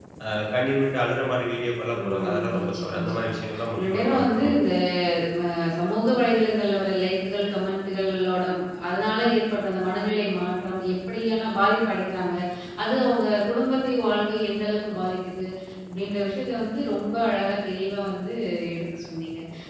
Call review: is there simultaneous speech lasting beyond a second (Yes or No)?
Yes